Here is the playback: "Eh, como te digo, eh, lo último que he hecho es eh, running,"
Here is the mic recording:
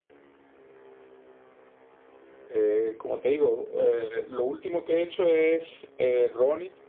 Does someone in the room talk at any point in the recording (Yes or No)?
No